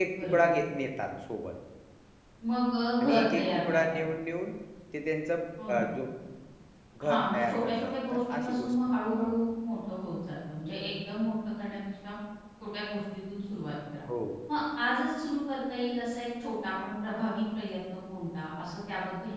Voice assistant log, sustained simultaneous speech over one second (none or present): present